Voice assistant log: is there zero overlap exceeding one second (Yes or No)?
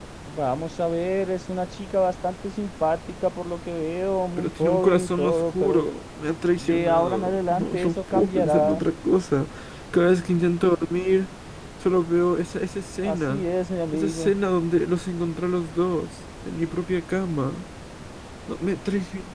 No